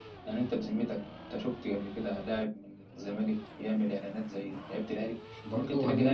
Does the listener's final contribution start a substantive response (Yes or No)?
Yes